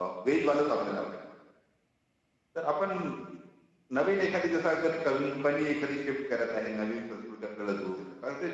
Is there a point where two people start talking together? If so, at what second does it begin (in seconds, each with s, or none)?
none